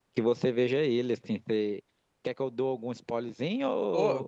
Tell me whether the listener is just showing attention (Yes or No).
No